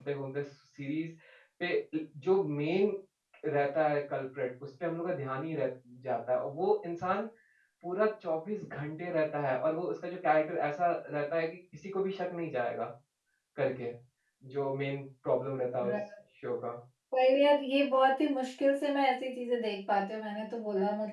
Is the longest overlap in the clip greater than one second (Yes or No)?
No